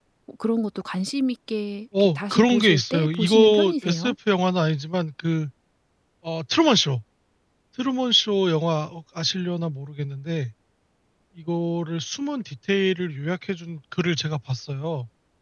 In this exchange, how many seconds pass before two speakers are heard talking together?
2 s

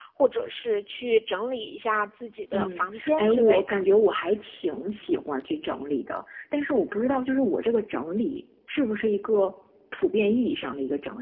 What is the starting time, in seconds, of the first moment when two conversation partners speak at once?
3 s

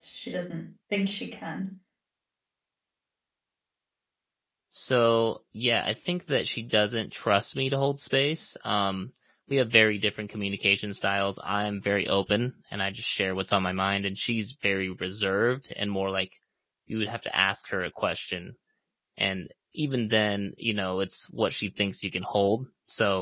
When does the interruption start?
none

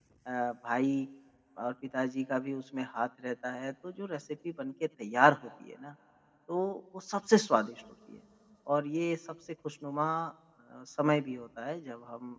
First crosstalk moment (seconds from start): none

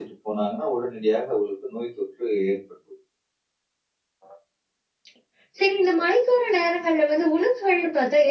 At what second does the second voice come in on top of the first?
none

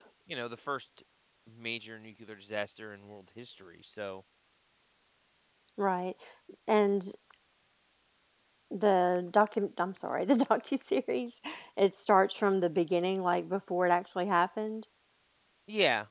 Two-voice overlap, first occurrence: none

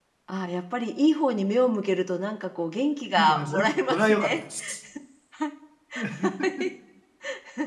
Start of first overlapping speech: 3 s

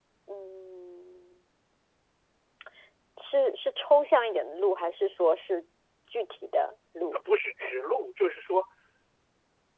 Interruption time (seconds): none

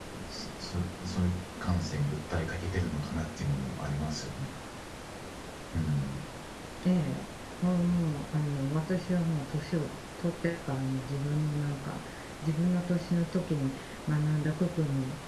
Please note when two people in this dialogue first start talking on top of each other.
none

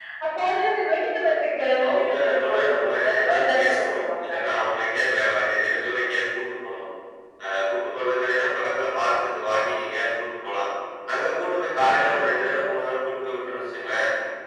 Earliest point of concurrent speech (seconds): 2 s

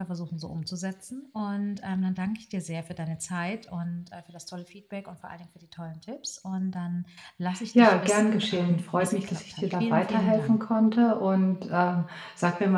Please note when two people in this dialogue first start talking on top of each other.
8 s

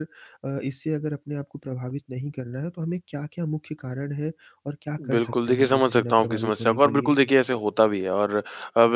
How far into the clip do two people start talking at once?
5 s

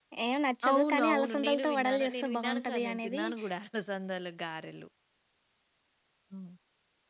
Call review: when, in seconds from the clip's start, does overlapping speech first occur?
1 s

